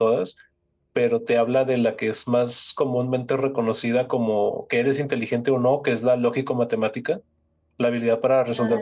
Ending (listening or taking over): listening